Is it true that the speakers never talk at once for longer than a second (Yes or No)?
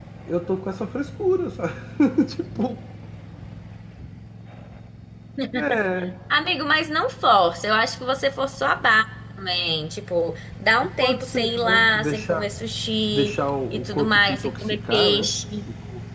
No